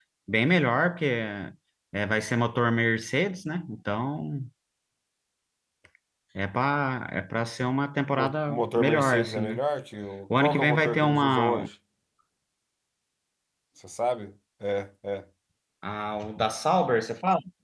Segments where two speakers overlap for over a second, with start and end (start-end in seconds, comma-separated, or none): 8.1-9.6, 10.4-11.7